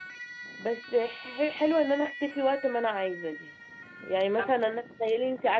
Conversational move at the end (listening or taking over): listening